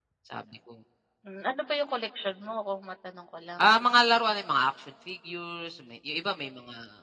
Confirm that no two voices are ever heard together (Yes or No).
Yes